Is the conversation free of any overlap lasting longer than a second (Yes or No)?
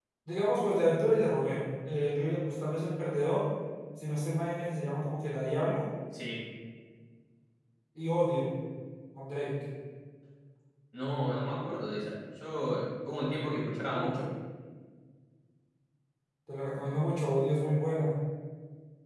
Yes